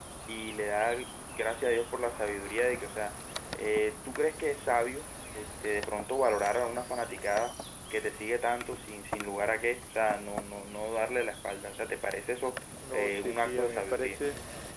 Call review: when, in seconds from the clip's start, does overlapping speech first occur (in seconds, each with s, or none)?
12.8 s